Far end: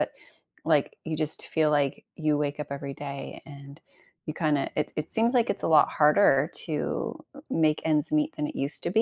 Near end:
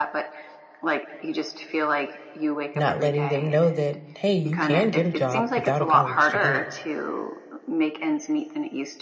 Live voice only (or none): Not letting them know that, hey, you can get a job without a college degree,